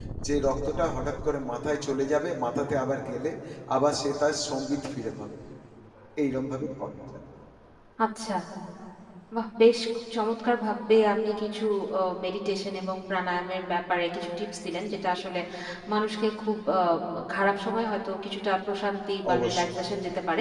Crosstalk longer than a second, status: none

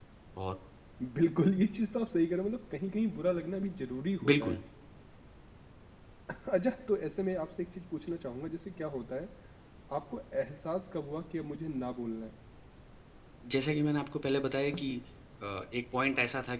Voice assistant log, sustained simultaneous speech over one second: none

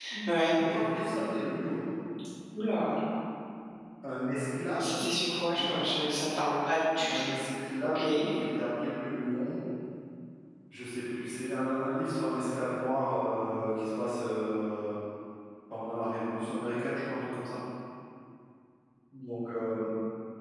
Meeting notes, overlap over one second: none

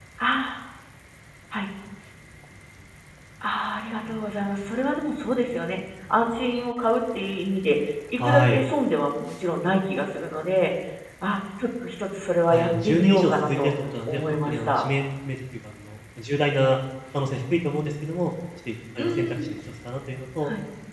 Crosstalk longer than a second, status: present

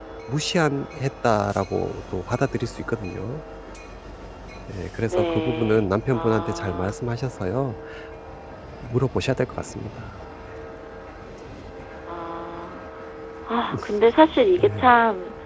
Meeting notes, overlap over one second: present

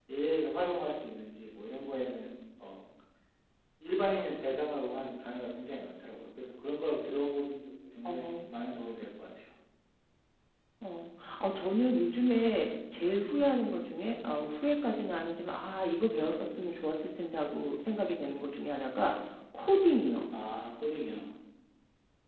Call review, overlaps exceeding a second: none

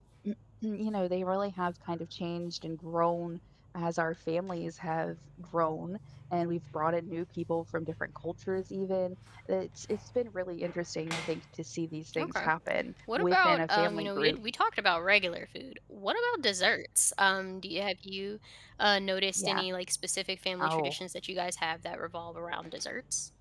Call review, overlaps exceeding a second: present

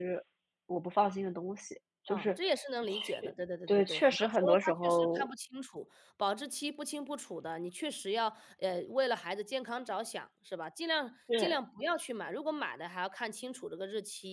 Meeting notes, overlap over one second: present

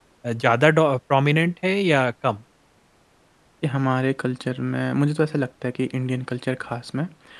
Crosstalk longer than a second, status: none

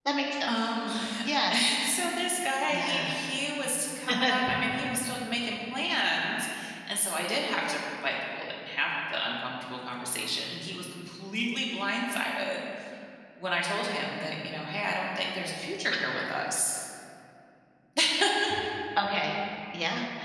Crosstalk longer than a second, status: none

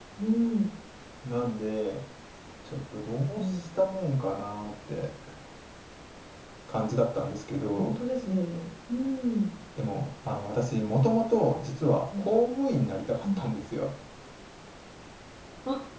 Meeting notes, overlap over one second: none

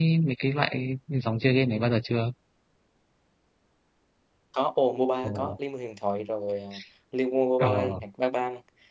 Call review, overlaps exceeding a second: none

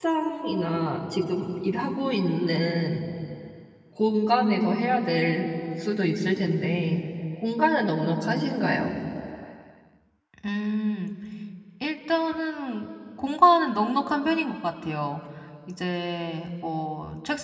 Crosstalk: none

